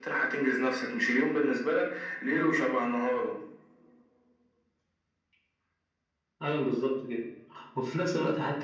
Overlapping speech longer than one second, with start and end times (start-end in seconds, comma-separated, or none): none